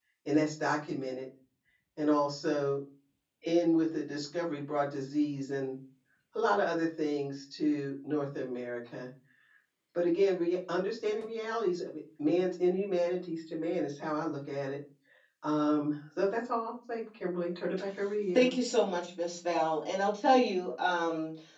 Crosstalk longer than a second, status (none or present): none